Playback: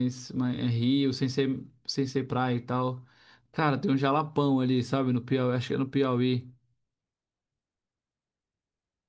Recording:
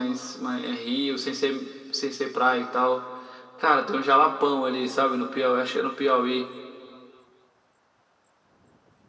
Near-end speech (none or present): none